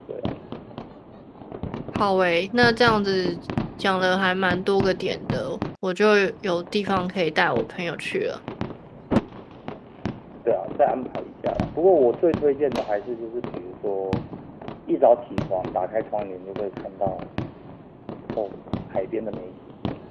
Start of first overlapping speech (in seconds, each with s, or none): none